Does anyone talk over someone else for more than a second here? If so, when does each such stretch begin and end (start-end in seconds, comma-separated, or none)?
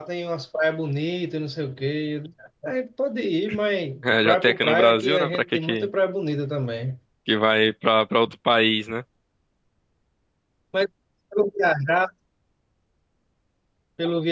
4.2-5.9